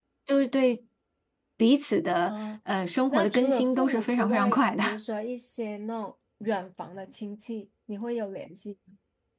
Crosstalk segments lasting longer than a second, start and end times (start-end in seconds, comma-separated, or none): 3.1-5.0